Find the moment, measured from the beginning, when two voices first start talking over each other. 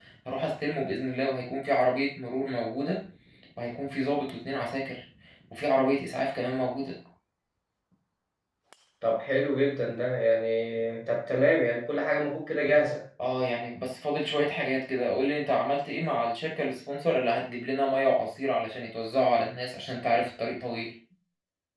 none

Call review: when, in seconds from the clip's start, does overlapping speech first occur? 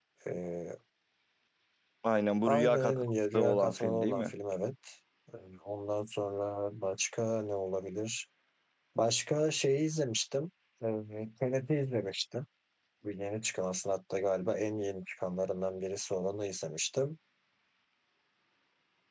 2.5 s

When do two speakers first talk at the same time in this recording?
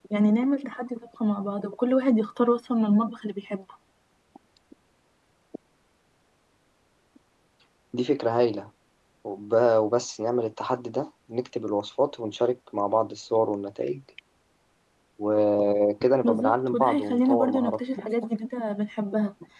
16.2 s

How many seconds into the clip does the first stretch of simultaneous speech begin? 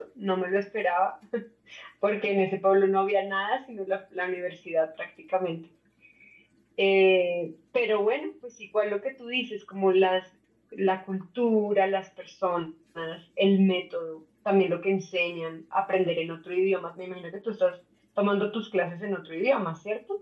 none

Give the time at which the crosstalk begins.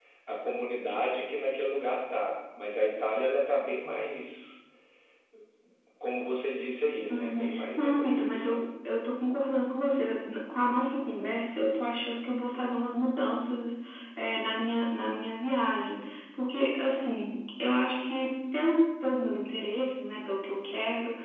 7.1 s

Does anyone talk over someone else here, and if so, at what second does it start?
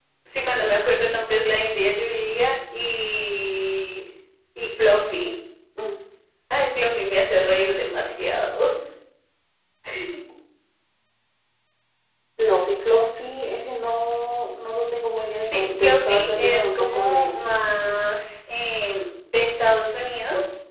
15.4 s

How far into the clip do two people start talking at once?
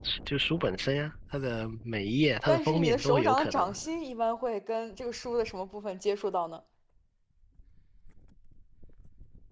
2.5 s

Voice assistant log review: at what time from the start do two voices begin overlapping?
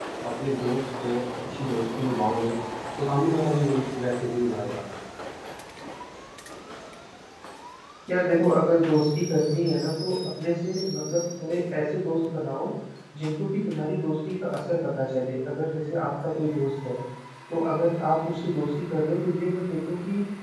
none

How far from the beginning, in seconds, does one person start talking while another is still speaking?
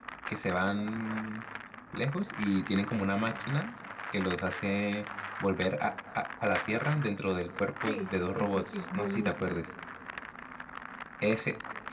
7.9 s

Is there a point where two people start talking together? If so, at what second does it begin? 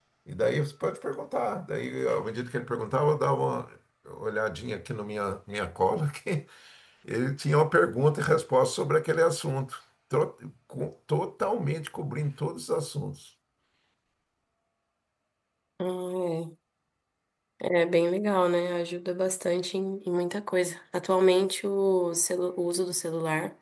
none

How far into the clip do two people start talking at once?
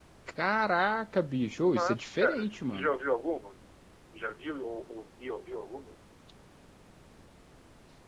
1.6 s

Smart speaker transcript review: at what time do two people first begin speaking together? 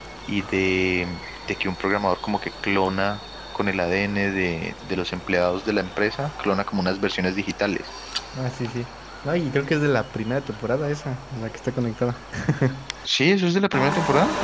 none

